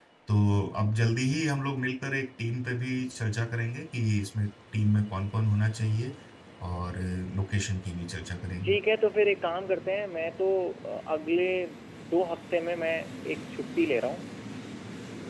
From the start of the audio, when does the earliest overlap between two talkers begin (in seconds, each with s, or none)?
none